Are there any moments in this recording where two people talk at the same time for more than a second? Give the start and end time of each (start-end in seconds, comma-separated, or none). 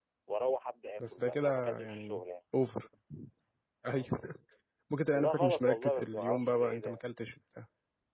1.0-2.2, 5.1-7.0